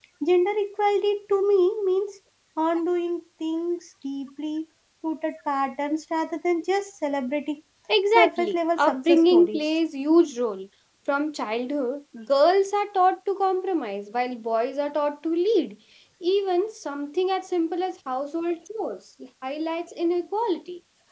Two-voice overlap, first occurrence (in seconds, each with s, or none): 8.2 s